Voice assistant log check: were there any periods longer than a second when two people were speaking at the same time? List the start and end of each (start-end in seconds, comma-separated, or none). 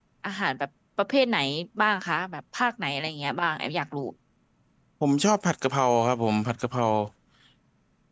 none